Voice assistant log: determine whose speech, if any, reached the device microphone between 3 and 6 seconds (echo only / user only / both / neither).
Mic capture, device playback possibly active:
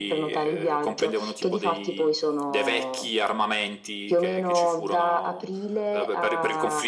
echo only